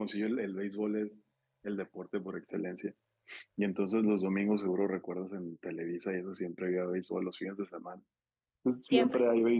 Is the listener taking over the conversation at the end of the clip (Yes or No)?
No